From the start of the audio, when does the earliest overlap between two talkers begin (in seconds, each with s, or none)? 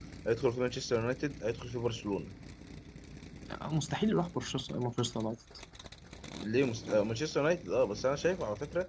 none